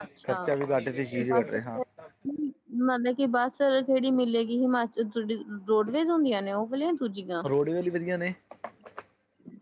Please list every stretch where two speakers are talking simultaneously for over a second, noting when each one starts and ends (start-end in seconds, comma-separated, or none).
none